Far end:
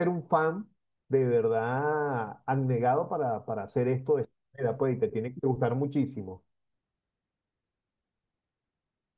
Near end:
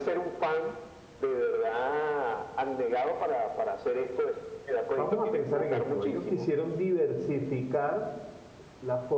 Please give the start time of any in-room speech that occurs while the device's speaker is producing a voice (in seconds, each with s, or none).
4.9 s